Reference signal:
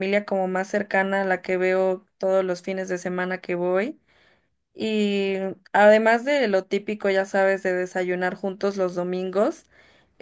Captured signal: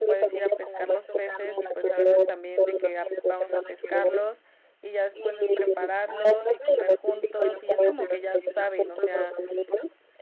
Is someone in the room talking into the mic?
Yes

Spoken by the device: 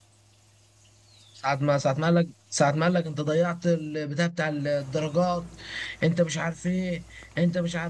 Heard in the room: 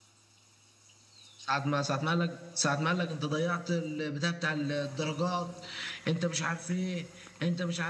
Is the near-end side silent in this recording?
Yes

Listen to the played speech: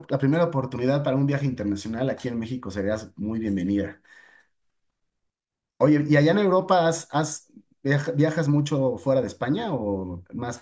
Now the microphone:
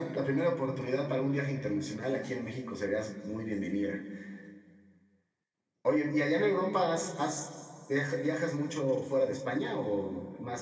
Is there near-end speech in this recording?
No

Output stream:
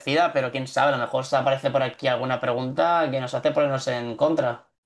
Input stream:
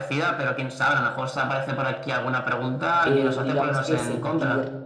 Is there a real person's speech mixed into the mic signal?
Yes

